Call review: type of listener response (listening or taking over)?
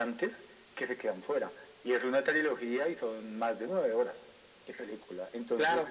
listening